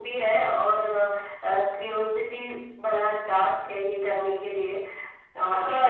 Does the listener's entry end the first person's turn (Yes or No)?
Yes